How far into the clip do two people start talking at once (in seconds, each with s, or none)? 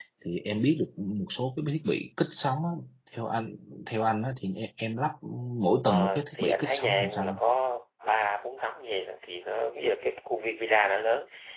5.8 s